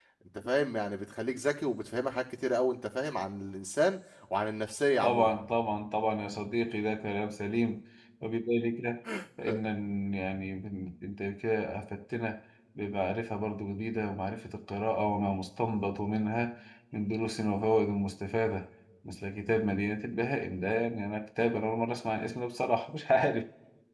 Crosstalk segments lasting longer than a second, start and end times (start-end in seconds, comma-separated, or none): none